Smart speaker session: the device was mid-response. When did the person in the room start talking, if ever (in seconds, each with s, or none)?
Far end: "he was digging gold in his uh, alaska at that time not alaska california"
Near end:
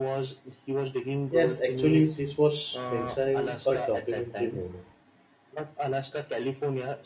1.3 s